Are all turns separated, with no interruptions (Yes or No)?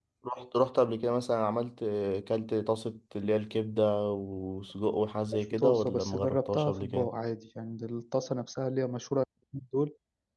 No